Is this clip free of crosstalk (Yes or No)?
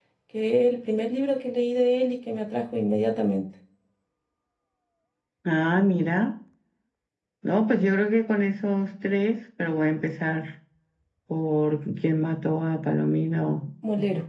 Yes